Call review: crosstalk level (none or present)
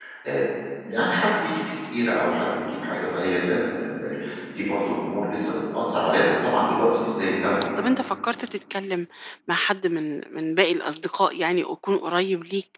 none